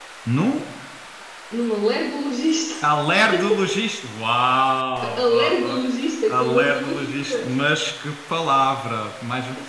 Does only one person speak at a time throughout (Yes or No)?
No